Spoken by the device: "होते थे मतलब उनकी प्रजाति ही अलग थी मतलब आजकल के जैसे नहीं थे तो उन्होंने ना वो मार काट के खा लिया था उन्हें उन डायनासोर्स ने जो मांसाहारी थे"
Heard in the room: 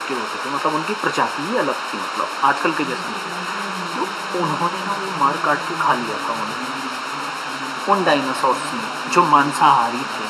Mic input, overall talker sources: both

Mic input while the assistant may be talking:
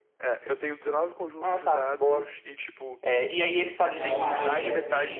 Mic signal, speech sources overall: both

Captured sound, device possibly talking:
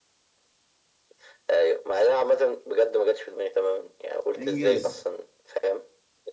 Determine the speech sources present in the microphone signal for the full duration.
both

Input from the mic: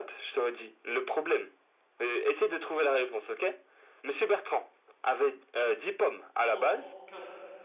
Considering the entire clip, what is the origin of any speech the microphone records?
both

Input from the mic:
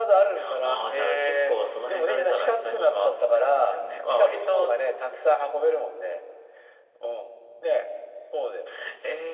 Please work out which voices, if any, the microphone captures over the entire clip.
echo only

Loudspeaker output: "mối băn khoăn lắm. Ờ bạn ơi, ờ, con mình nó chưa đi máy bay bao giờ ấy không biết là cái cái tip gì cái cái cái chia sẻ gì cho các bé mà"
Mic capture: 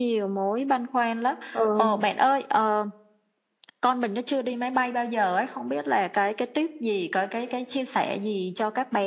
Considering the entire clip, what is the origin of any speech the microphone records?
both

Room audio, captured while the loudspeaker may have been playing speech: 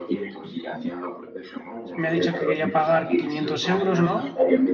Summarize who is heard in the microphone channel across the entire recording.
both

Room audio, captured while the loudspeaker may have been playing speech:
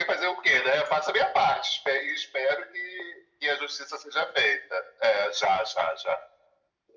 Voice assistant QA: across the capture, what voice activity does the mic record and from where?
echo only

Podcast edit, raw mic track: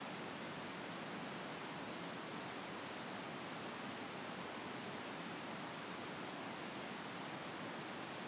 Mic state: neither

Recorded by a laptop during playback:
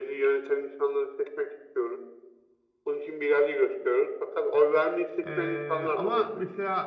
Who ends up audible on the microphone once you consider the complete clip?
both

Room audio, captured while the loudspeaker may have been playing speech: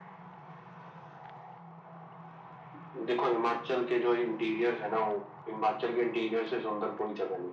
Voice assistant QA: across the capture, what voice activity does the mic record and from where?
echo only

